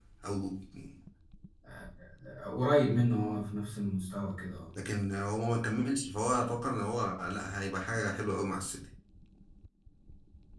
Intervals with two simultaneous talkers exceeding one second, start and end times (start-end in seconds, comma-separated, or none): none